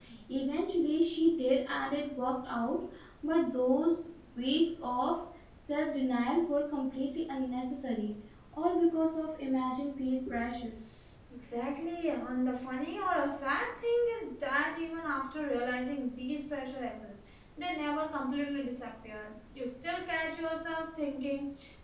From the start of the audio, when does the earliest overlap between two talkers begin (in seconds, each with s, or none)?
none